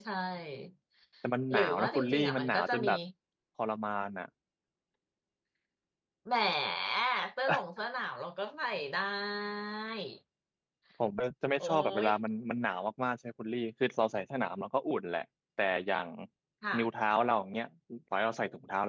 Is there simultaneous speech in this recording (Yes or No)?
Yes